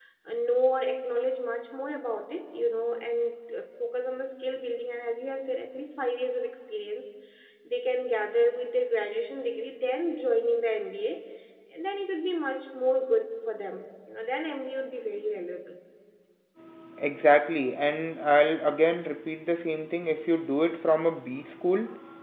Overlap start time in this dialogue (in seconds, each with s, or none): none